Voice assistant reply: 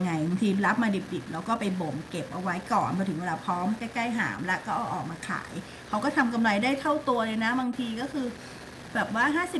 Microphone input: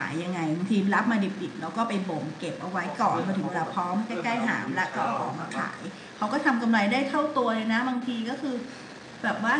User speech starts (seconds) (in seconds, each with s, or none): 2.8 s